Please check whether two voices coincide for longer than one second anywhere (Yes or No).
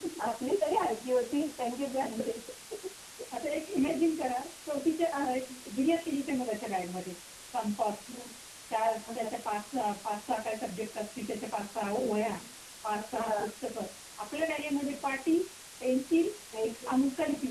No